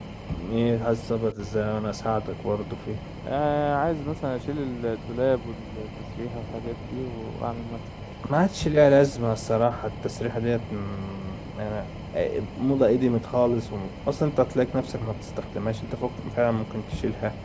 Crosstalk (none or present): none